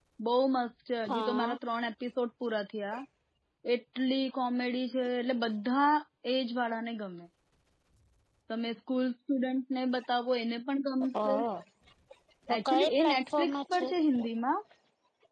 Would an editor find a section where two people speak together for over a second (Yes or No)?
Yes